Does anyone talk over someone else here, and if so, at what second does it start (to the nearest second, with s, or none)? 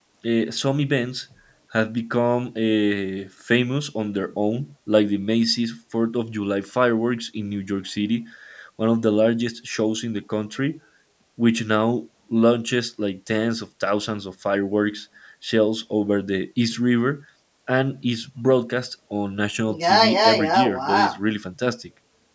20 s